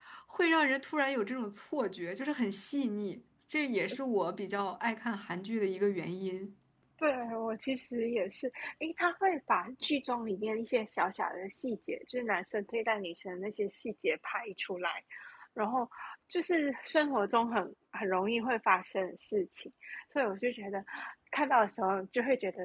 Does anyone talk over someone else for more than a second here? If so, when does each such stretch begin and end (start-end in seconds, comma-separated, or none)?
none